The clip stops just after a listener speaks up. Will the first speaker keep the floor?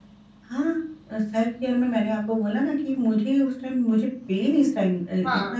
Yes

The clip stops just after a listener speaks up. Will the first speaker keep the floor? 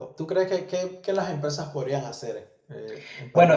No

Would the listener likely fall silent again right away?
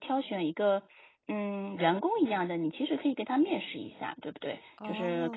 Yes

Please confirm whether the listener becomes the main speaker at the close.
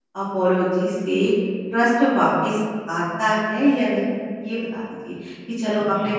No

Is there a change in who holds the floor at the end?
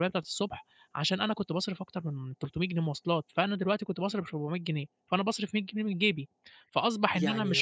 No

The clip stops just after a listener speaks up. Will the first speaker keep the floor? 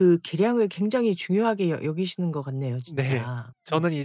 No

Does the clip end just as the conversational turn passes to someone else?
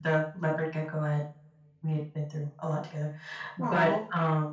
No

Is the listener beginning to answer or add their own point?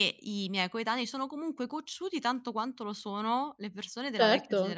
Yes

